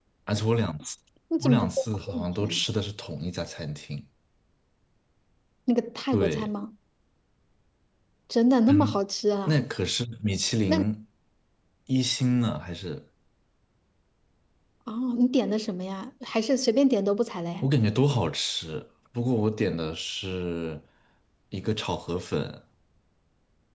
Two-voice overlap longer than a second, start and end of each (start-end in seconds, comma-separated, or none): 1.4-2.6